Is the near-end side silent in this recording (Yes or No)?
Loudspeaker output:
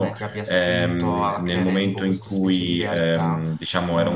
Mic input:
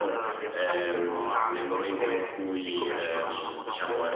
No